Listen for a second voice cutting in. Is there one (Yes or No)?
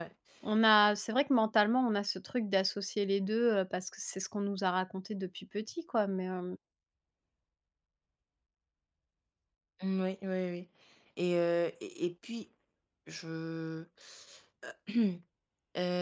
No